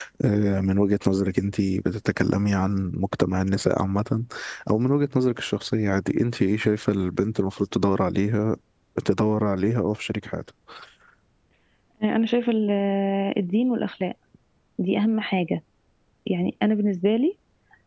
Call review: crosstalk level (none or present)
none